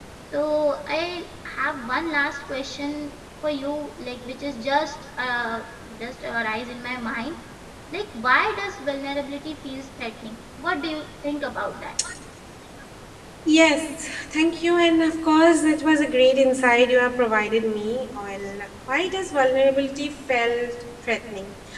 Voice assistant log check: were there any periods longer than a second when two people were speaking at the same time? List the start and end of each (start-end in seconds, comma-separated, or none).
none